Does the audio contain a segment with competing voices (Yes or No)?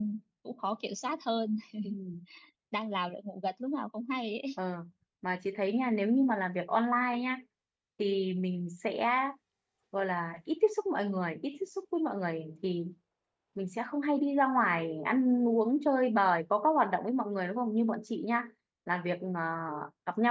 No